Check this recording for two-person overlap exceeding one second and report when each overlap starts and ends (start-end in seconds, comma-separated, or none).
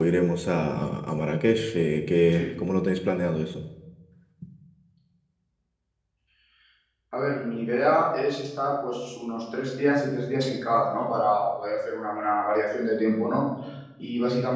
none